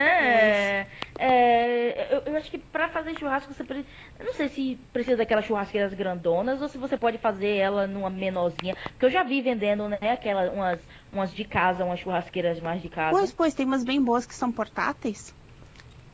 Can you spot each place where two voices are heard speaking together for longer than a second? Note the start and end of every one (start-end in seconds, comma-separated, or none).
none